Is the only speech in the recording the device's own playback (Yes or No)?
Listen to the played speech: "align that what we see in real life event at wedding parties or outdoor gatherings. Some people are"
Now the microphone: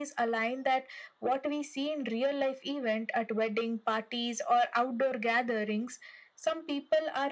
Yes